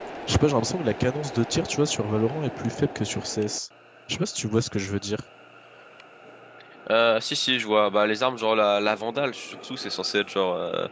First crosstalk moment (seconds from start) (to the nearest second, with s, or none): none